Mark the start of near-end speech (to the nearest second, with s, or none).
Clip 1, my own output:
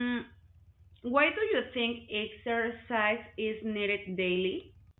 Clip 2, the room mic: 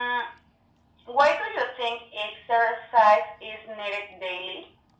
none